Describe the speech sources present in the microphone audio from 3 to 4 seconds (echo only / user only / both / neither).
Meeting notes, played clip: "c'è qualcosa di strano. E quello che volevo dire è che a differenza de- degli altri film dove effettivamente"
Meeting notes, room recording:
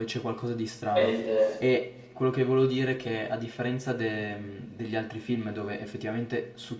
echo only